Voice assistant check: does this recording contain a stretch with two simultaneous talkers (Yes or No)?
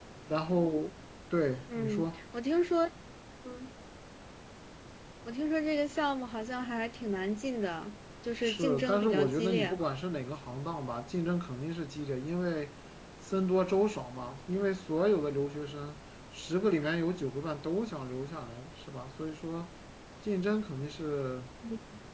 Yes